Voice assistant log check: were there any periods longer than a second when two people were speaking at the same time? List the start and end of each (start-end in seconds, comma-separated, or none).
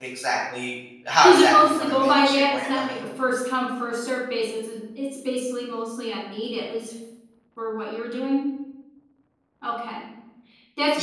1.2-3.0